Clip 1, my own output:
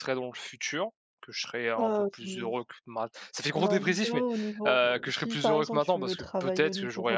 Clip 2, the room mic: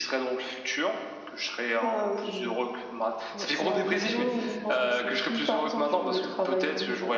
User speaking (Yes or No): Yes